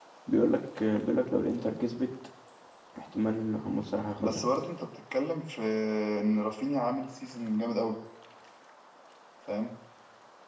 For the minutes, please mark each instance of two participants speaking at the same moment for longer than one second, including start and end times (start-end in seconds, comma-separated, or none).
none